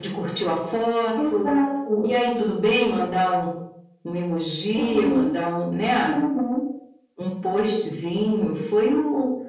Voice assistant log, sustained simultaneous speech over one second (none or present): none